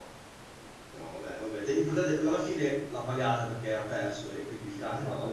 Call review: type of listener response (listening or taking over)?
taking over